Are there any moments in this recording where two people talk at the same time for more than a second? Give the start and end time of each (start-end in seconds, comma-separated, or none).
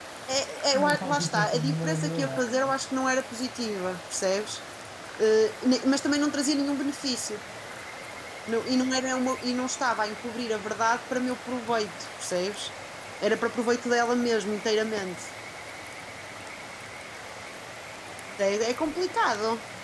0.7-2.7